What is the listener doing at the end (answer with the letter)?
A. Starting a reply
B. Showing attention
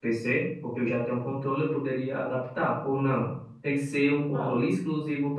B